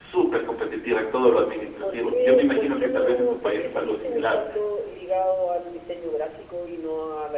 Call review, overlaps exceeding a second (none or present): present